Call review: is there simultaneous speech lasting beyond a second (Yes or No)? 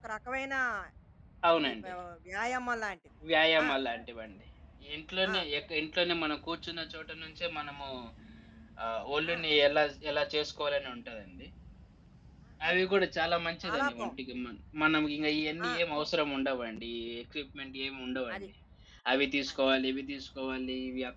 No